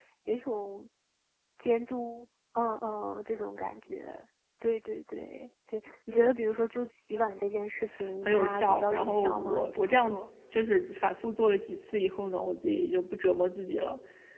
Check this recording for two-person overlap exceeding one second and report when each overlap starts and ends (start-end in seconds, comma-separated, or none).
8.2-10.2